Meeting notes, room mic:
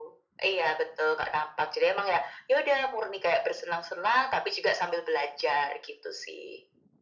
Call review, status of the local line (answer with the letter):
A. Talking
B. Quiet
B